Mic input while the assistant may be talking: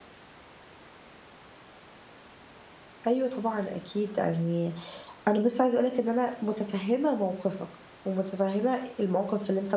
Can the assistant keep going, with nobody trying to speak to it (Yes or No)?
No